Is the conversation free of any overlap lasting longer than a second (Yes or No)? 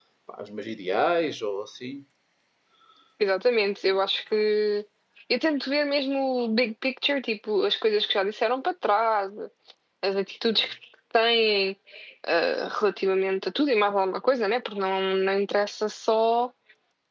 Yes